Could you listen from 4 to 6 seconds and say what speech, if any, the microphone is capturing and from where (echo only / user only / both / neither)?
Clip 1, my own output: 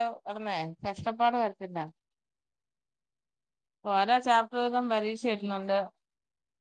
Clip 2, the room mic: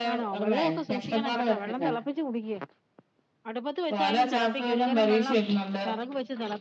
both